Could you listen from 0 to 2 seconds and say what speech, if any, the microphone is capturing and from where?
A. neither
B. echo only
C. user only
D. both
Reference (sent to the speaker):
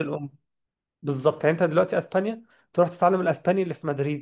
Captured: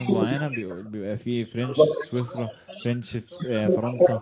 D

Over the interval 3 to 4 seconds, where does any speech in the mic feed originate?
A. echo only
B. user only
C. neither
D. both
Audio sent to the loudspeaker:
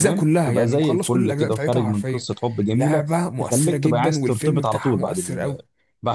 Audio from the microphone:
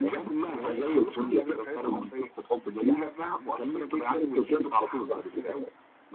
A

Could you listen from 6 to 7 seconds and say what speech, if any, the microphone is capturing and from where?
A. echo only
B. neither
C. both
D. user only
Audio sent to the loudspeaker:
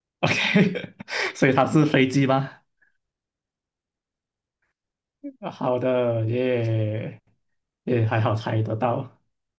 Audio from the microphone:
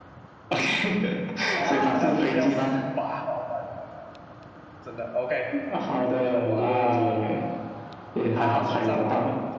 C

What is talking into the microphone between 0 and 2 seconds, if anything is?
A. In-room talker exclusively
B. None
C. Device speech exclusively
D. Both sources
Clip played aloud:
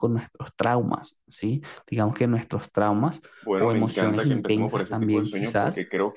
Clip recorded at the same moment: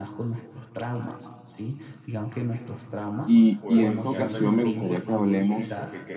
C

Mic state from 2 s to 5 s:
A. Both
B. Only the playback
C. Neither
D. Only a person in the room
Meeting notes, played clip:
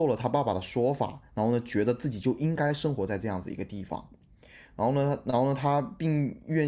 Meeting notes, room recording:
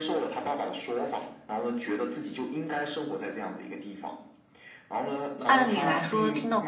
B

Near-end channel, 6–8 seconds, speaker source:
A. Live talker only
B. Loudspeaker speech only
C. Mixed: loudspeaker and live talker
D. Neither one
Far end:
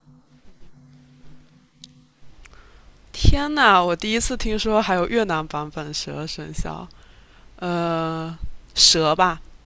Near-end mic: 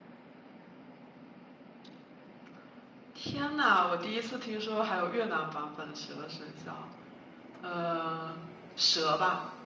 B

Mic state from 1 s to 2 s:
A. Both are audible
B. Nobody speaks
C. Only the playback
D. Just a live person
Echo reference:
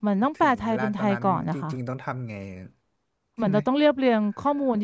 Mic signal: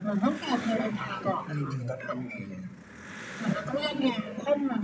A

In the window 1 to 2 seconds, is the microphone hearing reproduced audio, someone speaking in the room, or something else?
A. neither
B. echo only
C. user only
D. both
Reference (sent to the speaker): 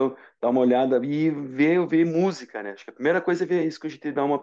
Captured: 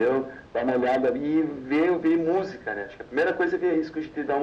B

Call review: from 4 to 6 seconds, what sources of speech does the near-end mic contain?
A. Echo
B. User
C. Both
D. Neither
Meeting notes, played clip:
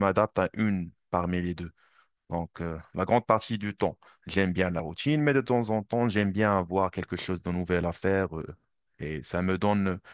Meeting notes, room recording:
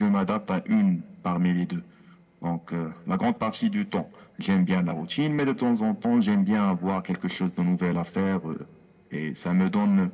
A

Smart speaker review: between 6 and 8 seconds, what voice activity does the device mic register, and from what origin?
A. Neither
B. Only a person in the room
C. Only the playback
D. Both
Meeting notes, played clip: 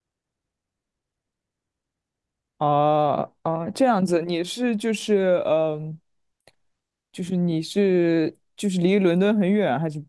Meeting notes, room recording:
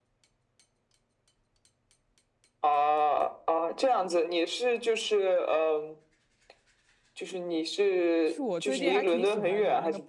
C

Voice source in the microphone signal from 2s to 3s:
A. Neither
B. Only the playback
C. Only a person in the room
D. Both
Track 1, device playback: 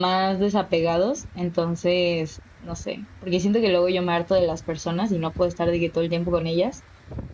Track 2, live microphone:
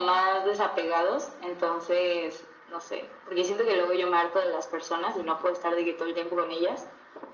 B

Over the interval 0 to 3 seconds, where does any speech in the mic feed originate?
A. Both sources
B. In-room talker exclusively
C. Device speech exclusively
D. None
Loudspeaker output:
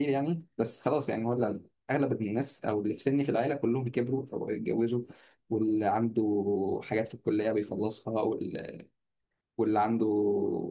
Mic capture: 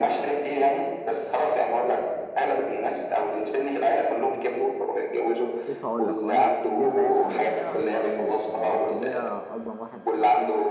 C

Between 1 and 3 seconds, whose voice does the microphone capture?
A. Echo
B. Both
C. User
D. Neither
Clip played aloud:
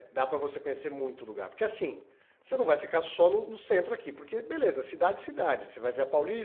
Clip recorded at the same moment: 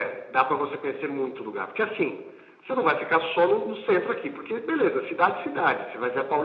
A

